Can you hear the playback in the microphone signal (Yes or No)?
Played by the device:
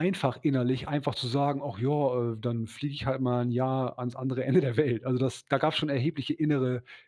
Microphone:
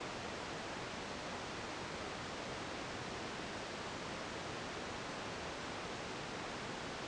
No